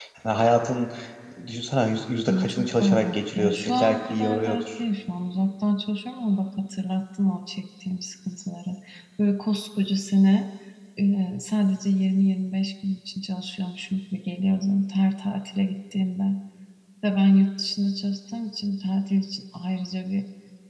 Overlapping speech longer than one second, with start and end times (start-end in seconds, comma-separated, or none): 2.3-4.8